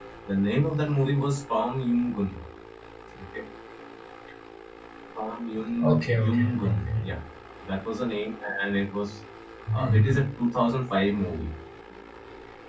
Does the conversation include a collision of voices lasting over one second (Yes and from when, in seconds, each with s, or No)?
Yes, from 5.8 s